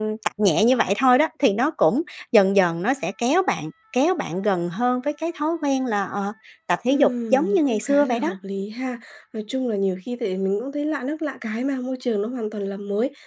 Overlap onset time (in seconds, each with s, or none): 6.9 s